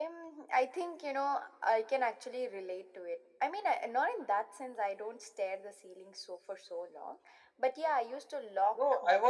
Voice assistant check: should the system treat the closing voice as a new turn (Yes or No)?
Yes